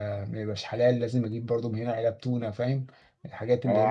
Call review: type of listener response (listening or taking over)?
taking over